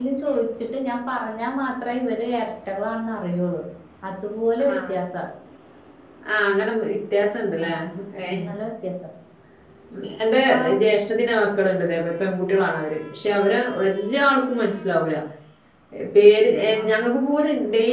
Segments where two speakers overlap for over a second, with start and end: none

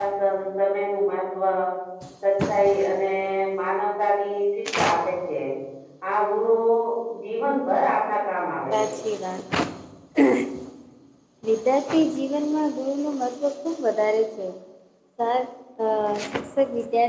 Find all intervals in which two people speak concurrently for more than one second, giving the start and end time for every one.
none

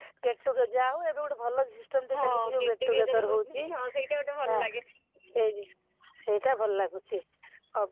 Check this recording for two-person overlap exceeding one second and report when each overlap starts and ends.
2.1-3.6

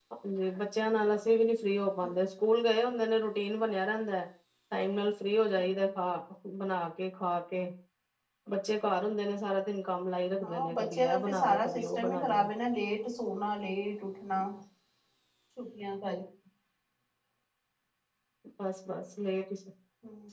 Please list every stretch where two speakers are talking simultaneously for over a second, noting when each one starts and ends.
10.4-12.5

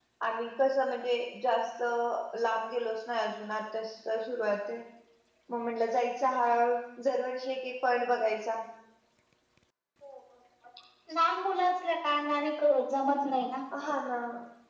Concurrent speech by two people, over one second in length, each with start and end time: none

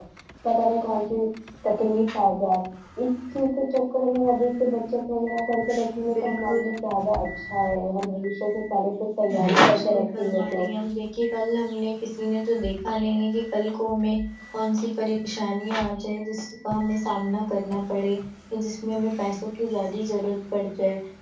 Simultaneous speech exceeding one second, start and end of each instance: 9.4-10.6

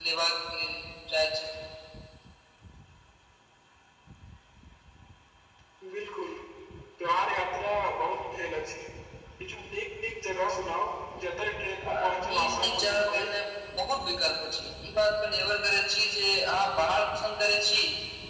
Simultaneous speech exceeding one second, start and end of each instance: 11.8-13.3

